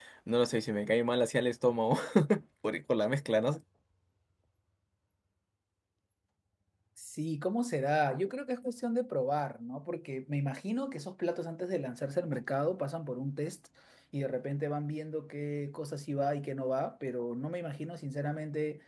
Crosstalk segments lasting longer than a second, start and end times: none

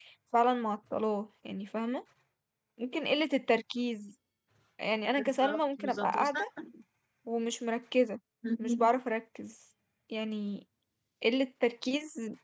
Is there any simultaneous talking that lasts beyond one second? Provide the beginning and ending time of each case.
5.2-6.4

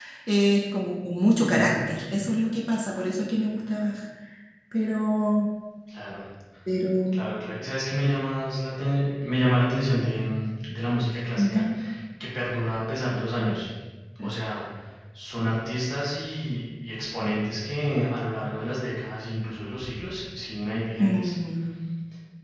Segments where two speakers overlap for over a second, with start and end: none

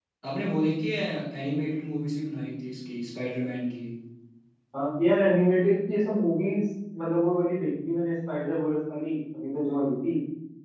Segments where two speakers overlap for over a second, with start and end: none

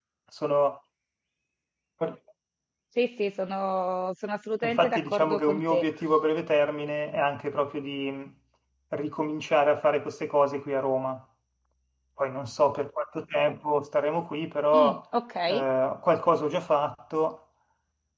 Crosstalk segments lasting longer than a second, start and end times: 4.6-5.8

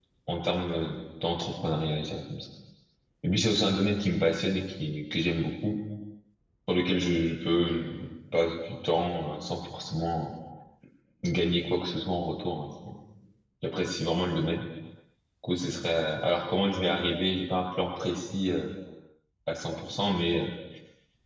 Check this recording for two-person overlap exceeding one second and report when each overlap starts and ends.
none

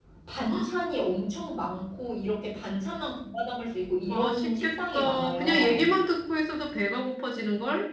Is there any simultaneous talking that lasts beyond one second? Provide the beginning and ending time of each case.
4.1-5.8

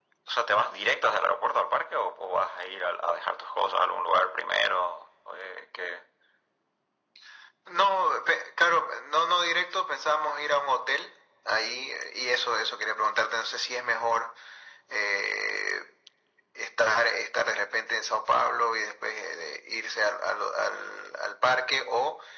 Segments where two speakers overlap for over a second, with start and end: none

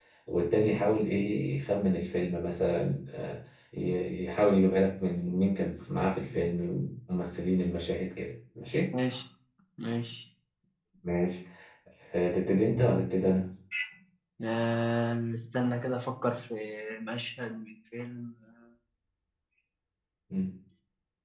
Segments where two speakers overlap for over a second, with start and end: none

